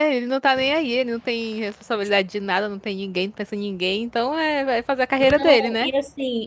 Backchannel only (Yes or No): No